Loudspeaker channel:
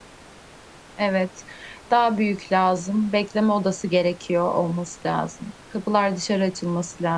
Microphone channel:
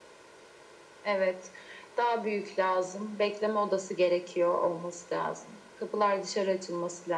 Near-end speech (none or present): none